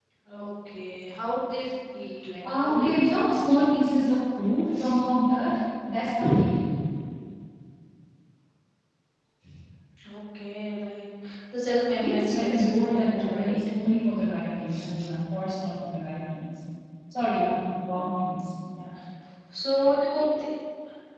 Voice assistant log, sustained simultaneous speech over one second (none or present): present